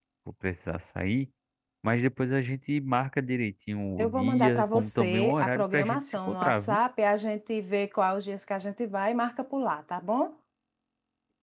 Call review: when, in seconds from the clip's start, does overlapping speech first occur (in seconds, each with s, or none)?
4.0 s